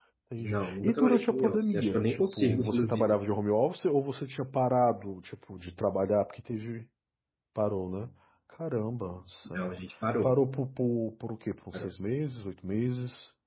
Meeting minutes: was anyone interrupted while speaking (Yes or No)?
Yes